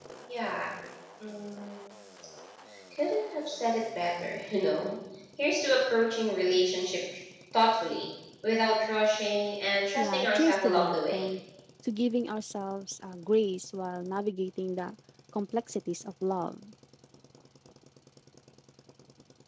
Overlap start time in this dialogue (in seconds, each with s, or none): 10.0 s